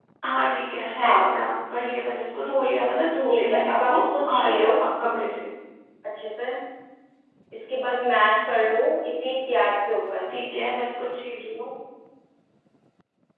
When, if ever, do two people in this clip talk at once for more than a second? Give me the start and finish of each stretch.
3.3-4.7

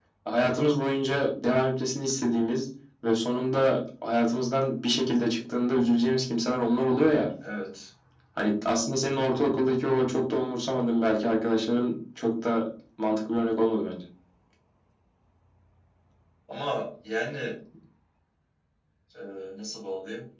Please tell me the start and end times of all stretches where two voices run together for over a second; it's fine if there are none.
none

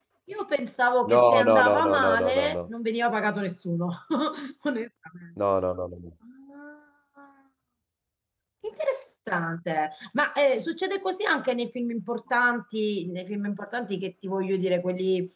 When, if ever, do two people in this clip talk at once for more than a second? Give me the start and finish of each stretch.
1.1-2.7

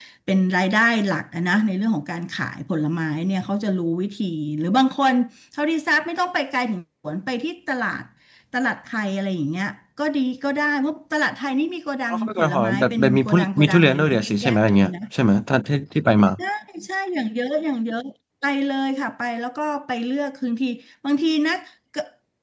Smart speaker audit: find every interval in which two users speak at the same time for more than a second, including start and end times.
12.1-14.9

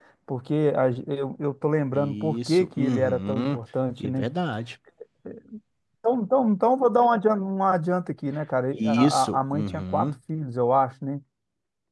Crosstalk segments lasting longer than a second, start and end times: 1.9-3.5, 8.7-10.1

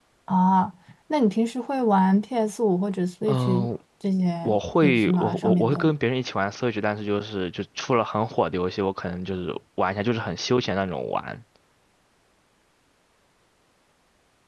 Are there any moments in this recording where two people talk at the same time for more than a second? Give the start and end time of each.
4.4-5.9

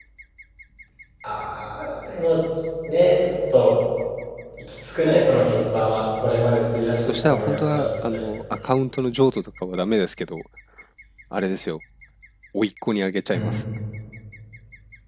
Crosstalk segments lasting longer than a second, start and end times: 7.0-8.2

